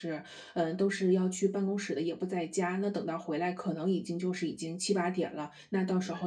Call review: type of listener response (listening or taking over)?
listening